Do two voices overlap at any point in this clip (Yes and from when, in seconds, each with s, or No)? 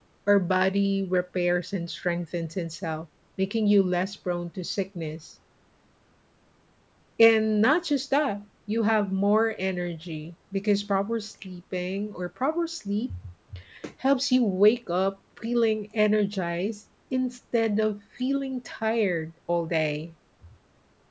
No